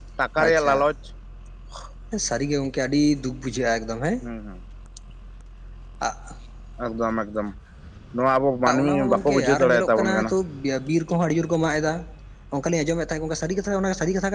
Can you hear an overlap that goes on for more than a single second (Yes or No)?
Yes